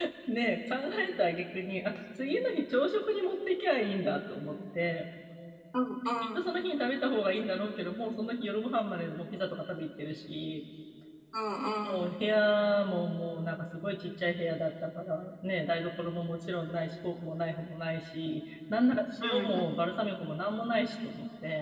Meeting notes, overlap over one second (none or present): none